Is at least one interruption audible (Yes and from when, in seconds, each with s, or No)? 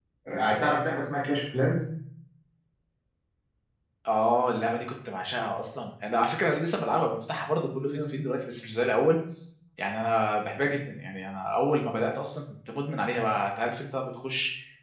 No